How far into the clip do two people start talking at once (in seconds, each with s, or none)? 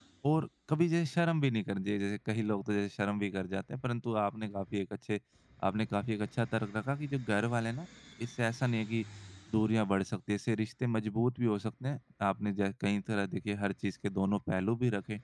none